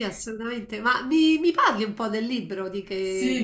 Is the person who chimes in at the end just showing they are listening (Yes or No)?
No